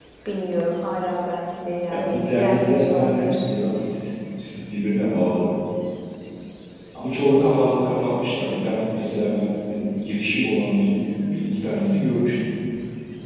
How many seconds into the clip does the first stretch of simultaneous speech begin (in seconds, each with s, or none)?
1.9 s